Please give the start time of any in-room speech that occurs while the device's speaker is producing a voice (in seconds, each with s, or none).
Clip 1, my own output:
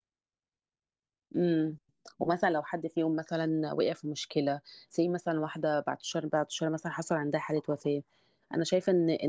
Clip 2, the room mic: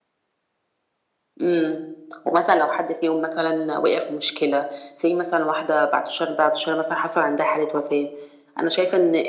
none